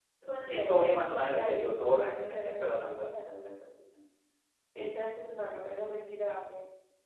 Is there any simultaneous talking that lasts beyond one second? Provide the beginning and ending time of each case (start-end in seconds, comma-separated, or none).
1.3-3.1